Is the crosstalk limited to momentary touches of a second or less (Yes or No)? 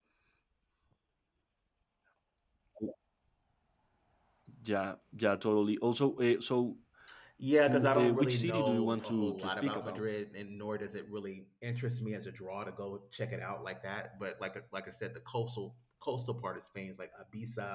No